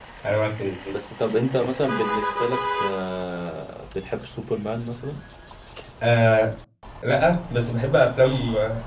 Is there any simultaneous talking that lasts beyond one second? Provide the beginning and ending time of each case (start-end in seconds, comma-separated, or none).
none